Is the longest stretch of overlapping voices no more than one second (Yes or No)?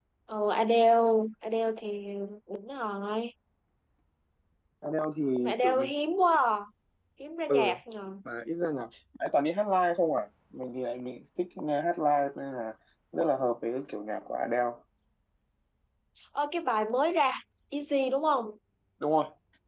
Yes